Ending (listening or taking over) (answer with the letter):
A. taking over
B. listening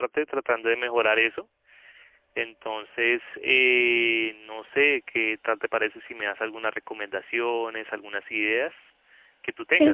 A